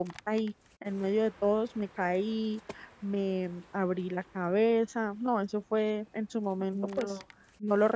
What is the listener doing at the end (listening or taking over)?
listening